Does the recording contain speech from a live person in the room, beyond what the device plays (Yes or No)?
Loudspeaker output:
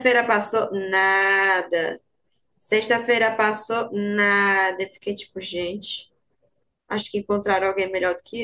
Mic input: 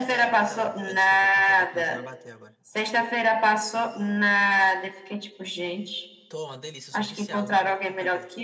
Yes